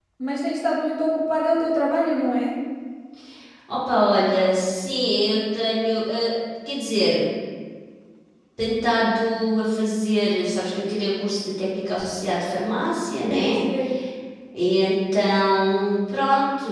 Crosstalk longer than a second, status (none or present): none